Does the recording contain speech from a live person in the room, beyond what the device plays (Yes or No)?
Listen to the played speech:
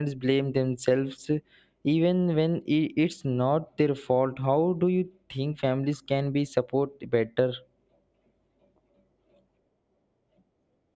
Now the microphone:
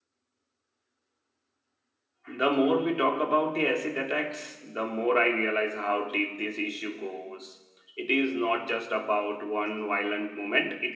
Yes